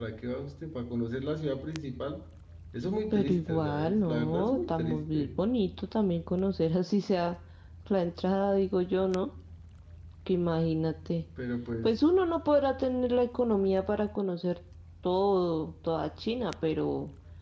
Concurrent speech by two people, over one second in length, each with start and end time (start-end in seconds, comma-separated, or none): 3.1-5.3